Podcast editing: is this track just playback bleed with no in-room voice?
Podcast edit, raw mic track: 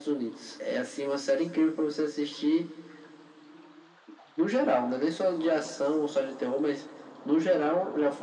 Yes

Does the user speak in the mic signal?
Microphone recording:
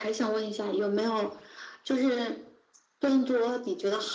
No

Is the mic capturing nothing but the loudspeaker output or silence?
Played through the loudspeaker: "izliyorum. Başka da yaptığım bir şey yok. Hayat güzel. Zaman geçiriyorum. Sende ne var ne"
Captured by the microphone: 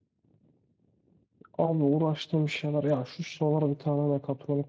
No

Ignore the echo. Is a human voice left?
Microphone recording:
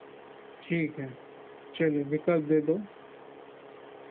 Yes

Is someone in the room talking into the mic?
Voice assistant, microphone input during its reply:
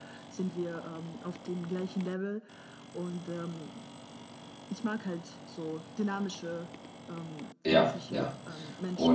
Yes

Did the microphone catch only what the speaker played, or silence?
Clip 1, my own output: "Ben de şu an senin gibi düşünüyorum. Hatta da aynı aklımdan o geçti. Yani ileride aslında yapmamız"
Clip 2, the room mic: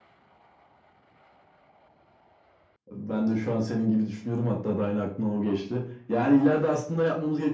Yes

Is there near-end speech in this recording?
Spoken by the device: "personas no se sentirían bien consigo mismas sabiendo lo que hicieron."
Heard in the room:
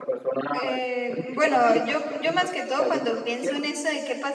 Yes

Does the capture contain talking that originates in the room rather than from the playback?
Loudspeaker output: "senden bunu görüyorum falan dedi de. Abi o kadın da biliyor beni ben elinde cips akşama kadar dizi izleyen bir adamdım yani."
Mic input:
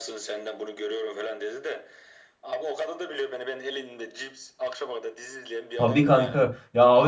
Yes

